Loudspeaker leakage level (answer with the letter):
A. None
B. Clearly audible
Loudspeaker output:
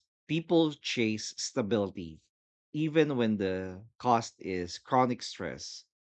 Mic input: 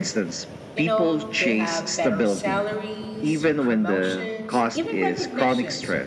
B